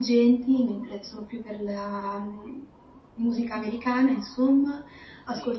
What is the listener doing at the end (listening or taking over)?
listening